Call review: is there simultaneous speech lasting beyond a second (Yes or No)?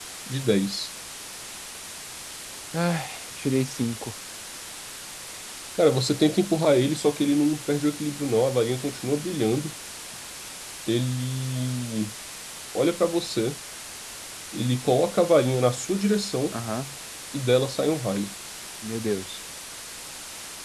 No